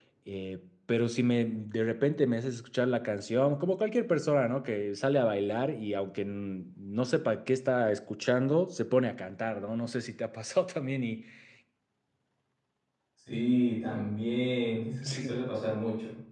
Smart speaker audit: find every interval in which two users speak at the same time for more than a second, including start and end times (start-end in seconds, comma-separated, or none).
none